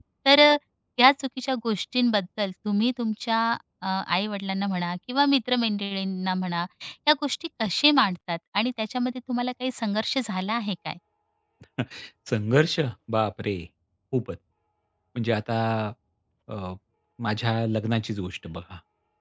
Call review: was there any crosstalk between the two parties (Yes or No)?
No